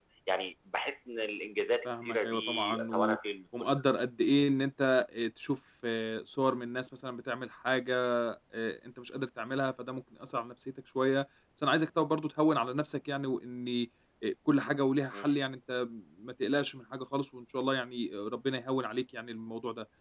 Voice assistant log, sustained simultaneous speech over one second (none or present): present